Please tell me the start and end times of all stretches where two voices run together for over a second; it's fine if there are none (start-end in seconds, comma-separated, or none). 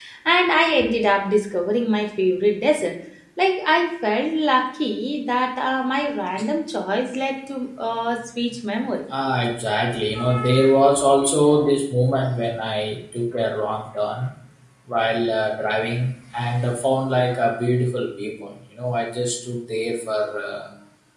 none